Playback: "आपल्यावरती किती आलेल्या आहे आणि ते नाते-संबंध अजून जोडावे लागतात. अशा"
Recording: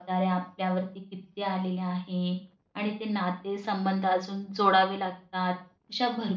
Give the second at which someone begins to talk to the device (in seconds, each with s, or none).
none